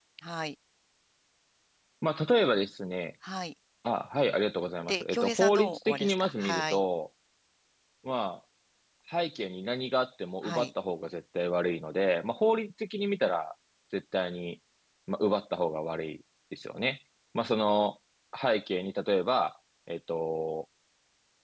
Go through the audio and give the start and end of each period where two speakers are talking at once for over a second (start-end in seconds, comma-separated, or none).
4.9-6.8